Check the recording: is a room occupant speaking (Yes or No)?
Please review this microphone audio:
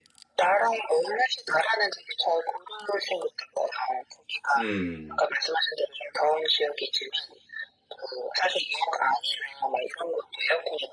Yes